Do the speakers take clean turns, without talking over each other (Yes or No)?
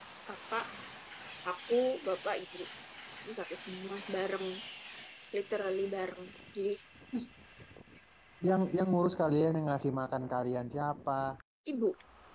Yes